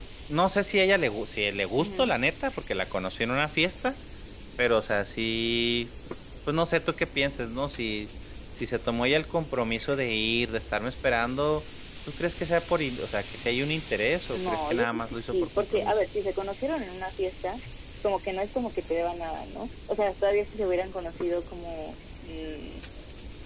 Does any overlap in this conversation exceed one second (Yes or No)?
Yes